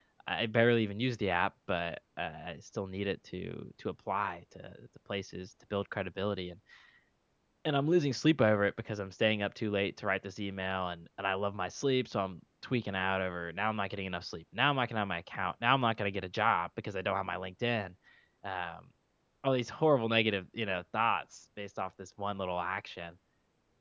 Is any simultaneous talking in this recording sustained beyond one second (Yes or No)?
No